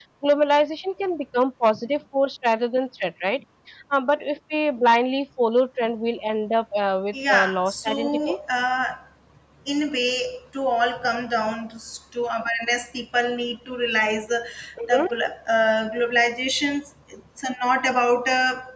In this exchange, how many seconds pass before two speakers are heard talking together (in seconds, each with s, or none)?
7.1 s